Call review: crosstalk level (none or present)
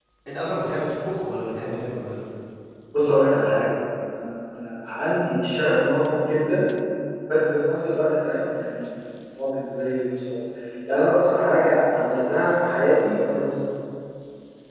none